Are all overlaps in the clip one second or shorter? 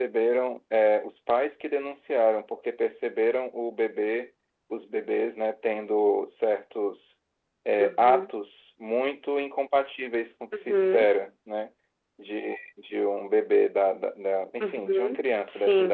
No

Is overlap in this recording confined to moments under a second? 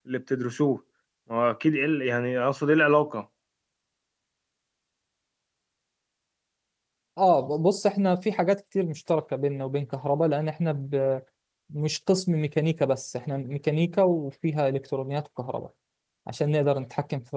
Yes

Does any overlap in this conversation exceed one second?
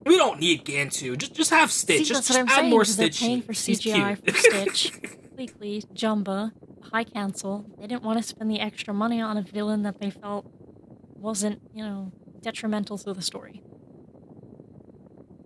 Yes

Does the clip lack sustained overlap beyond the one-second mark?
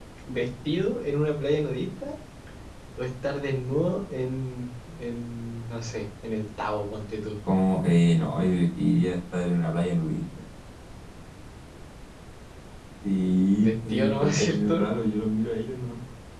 No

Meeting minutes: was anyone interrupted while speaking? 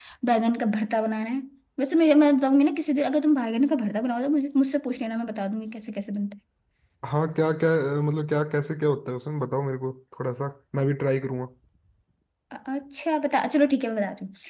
No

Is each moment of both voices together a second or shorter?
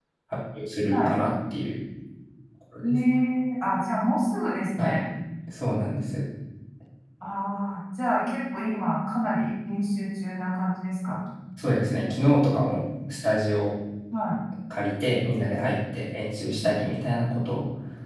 Yes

